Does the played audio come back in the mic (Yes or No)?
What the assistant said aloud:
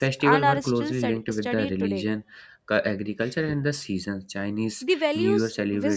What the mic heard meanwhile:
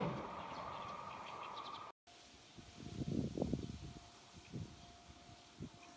No